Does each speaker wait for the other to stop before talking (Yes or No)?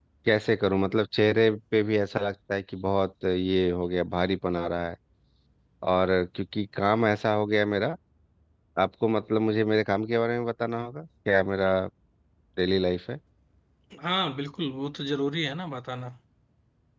Yes